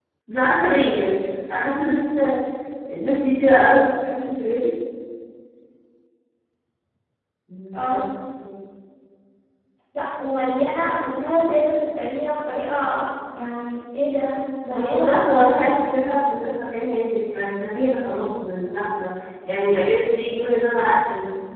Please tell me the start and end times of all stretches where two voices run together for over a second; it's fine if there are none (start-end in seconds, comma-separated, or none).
14.7-16.2